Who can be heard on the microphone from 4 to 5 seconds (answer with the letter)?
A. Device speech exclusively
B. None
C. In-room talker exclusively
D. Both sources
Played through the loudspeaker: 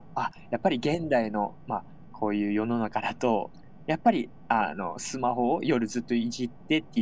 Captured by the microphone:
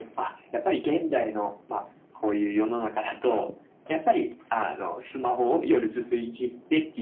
A